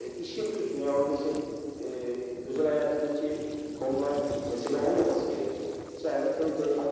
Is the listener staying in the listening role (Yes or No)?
Yes